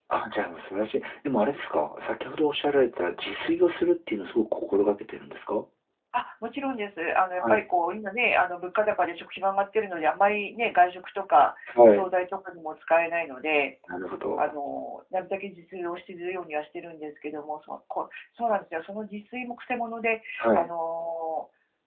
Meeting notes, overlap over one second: none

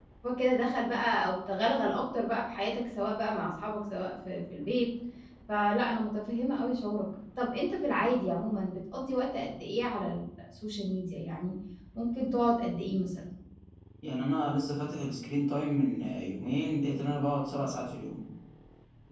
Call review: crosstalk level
none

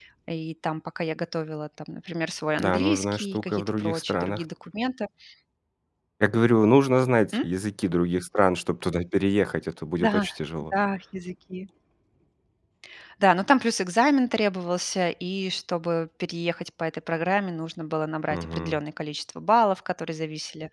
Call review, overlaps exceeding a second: present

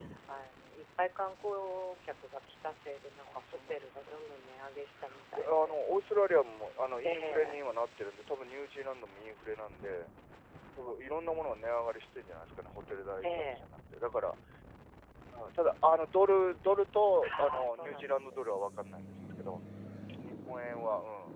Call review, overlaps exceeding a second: present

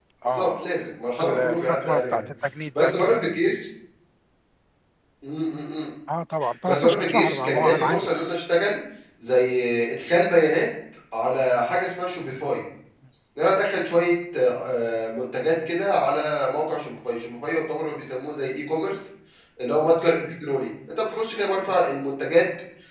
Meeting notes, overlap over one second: present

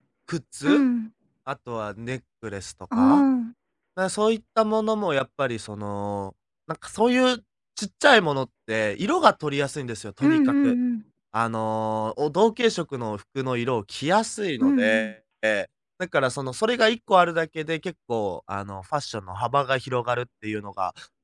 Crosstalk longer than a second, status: none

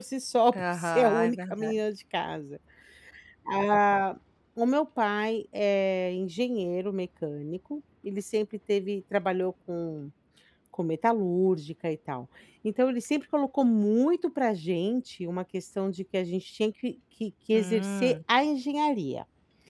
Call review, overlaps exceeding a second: present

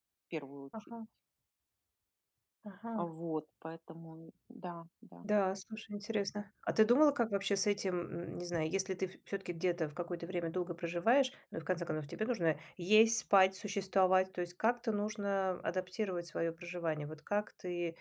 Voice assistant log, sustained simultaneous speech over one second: none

